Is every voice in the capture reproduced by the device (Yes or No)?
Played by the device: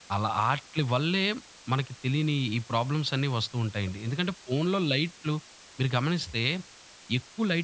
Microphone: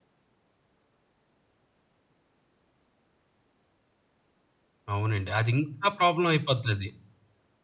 No